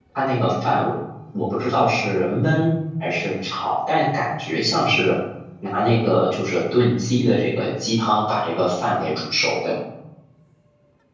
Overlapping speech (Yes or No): No